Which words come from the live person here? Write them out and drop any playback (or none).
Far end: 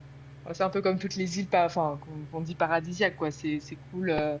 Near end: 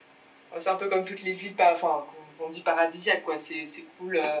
none